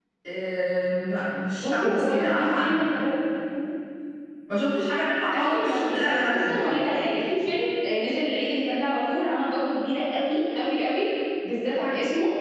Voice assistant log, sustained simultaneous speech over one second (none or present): present